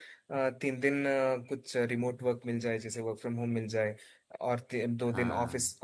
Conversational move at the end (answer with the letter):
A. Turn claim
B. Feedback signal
B